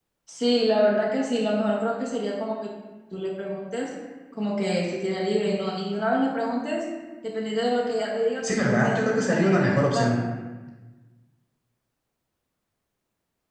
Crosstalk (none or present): present